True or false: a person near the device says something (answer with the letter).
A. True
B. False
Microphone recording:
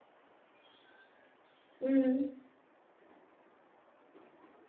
A